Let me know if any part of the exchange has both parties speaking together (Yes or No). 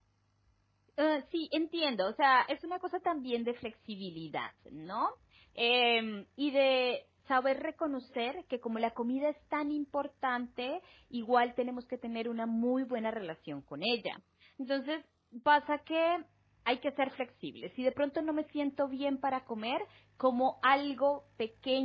No